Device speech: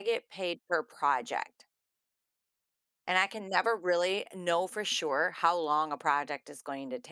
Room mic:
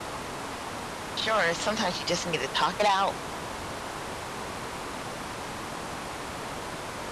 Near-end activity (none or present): present